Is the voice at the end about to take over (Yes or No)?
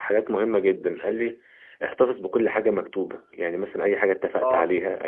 No